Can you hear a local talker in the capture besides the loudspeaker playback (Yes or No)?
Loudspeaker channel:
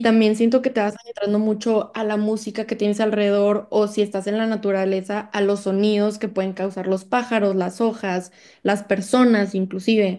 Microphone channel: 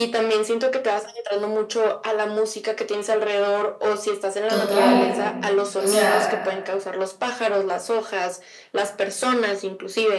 Yes